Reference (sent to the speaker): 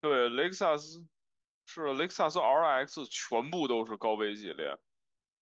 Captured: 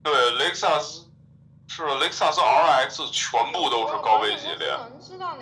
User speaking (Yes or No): Yes